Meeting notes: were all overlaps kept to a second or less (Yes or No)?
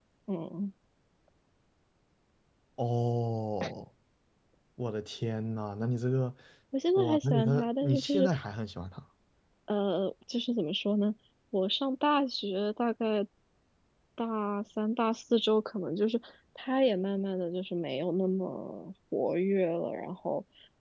No